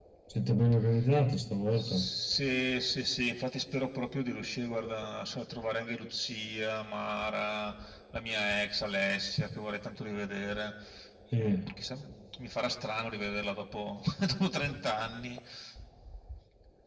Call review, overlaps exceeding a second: none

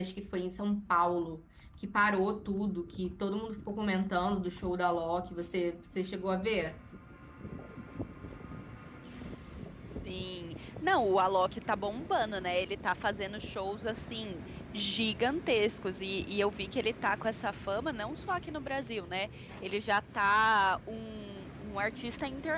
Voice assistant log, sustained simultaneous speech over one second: none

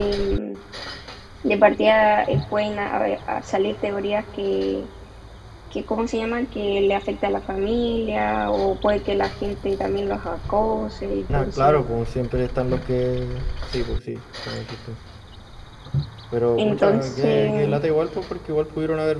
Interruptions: present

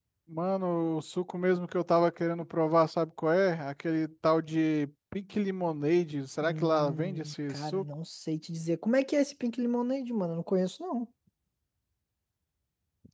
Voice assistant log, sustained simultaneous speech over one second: present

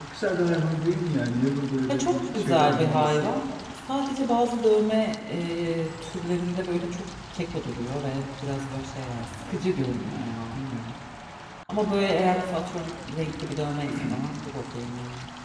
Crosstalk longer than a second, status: present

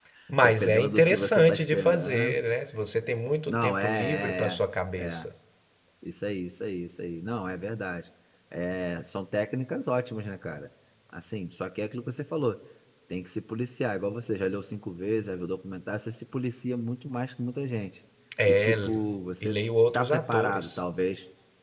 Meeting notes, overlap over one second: present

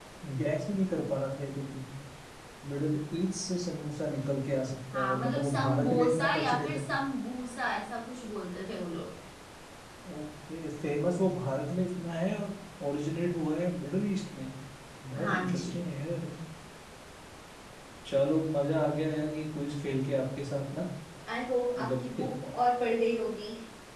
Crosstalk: present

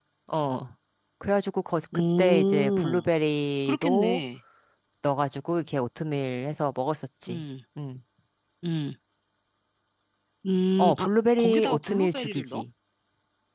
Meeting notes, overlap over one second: present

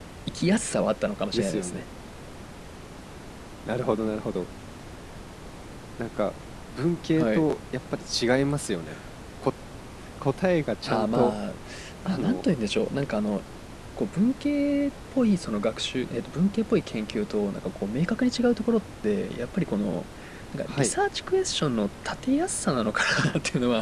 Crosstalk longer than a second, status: none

